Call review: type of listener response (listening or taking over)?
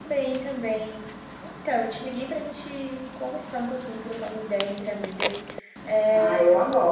taking over